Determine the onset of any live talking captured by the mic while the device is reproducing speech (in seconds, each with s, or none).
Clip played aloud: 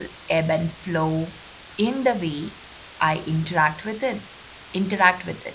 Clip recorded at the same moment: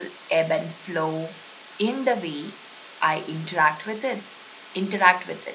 none